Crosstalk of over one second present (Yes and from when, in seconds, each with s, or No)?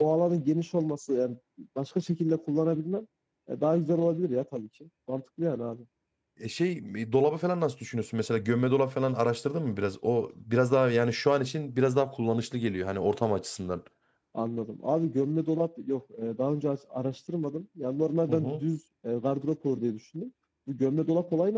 No